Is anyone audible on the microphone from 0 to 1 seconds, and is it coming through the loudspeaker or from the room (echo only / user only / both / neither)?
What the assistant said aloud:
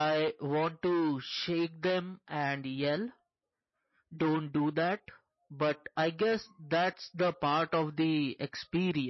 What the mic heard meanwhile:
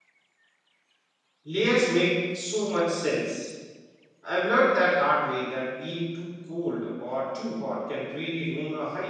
neither